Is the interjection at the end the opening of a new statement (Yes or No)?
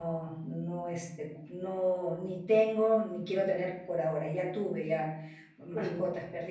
No